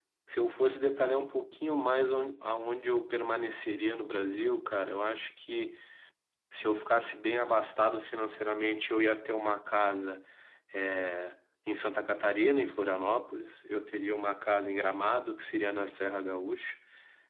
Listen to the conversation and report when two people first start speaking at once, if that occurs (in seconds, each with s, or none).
none